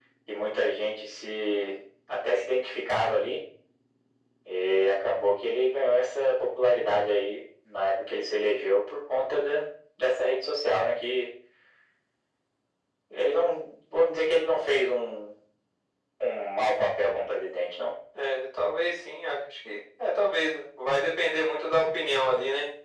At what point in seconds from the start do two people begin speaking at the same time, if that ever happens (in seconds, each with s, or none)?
none